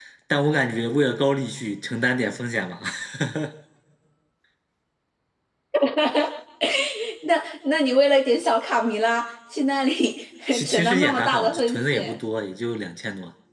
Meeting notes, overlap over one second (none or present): present